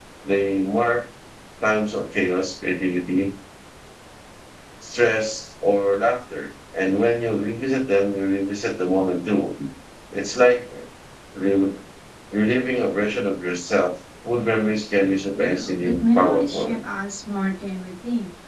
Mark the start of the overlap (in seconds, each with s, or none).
15.3 s